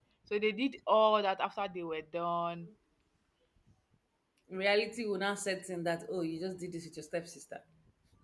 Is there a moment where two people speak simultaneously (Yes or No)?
No